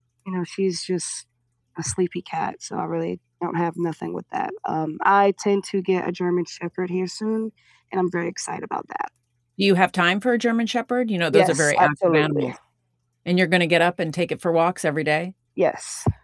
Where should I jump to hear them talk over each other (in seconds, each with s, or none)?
11.3 s